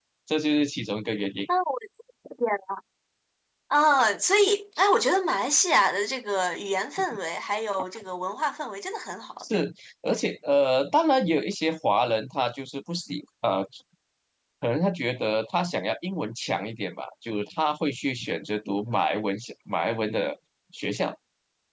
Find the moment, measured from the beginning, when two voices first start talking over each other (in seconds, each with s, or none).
none